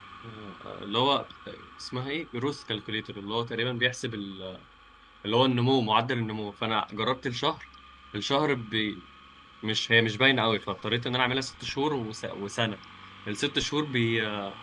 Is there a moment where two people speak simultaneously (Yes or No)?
No